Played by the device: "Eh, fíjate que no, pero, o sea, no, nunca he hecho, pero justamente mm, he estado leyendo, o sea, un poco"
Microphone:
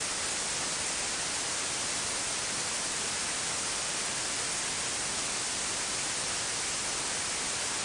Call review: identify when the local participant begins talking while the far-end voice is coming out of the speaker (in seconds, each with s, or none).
none